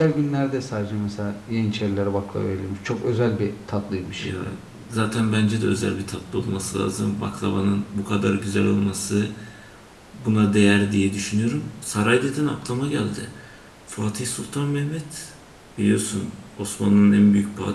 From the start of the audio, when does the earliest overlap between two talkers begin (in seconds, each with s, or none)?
none